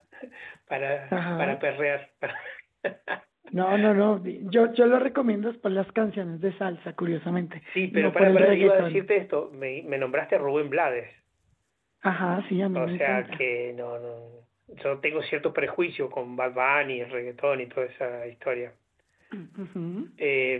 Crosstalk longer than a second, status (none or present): present